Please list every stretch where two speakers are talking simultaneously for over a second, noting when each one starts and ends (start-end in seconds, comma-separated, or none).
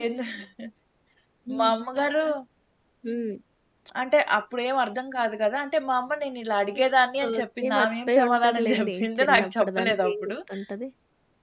7.3-10.3